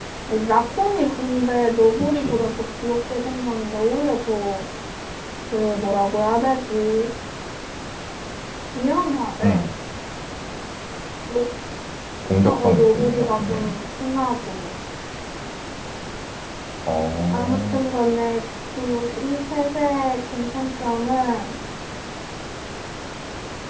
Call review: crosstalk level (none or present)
present